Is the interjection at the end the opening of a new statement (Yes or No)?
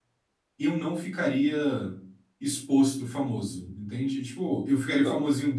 No